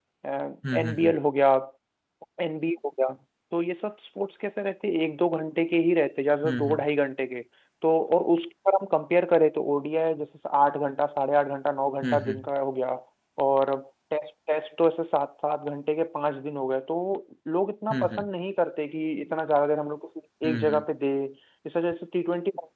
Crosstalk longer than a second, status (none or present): none